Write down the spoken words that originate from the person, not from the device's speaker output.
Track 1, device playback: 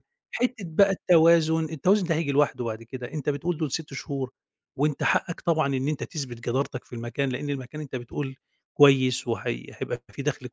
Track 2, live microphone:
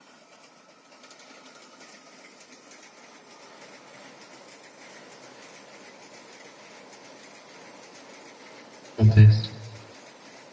ممتاز.

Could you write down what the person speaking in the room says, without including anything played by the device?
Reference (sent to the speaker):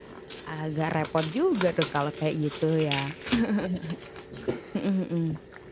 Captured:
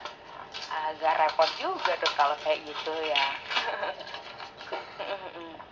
none

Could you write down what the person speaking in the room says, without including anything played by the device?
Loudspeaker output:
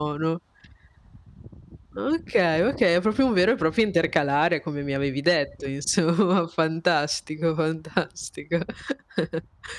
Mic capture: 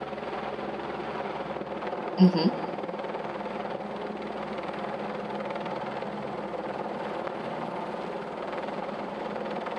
Mh-mh.

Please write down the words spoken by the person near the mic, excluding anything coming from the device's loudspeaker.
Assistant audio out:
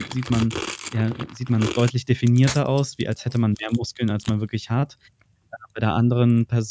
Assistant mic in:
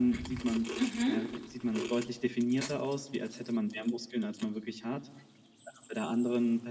Mhm.

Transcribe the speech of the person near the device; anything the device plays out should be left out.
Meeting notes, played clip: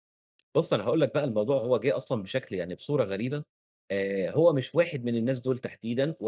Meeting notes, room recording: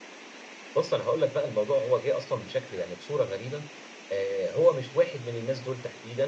none

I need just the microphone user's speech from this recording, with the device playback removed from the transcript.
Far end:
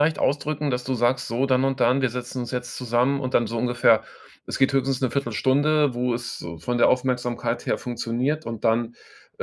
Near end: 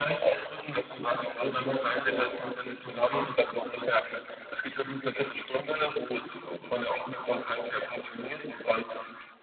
none

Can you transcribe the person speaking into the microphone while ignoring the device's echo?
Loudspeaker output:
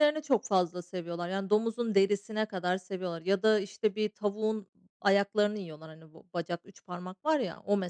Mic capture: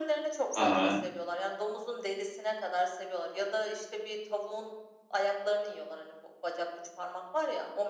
Hı hı.

